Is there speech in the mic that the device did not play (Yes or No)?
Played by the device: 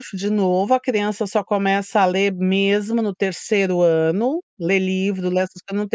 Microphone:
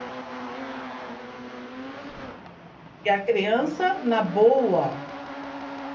Yes